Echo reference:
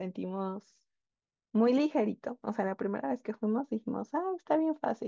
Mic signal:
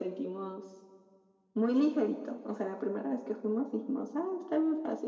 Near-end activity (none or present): none